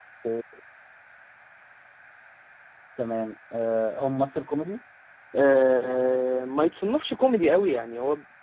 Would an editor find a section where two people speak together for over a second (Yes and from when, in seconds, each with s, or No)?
No